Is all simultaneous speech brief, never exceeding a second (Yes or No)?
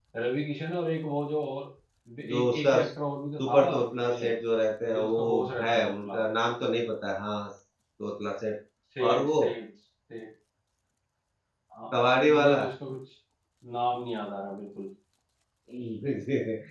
No